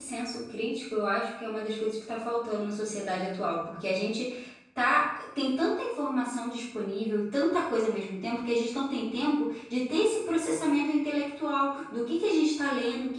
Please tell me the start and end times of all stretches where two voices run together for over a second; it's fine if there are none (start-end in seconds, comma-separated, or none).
none